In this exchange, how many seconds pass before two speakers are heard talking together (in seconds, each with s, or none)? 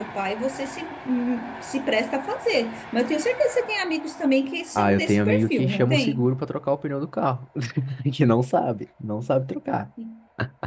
4.8 s